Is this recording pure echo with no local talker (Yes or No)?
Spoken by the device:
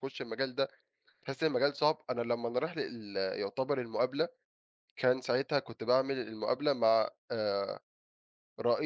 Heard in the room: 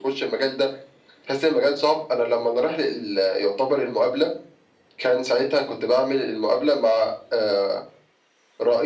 Yes